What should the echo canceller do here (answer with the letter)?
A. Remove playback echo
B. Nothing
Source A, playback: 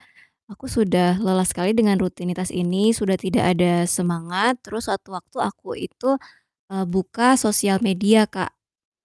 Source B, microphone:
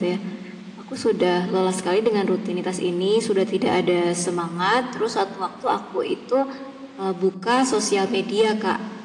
A